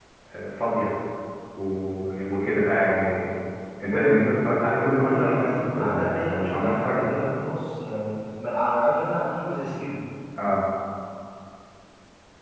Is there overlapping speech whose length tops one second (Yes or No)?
Yes